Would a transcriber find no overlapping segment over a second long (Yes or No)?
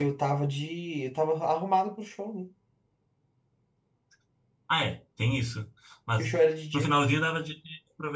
Yes